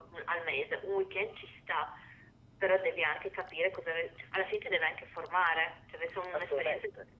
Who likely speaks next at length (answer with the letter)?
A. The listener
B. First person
A